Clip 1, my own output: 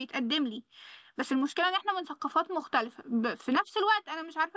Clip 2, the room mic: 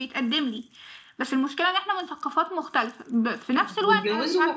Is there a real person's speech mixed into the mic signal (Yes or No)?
Yes